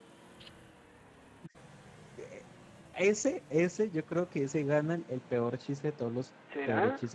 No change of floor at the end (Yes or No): Yes